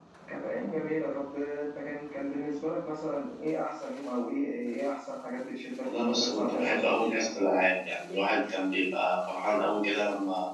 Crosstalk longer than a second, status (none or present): present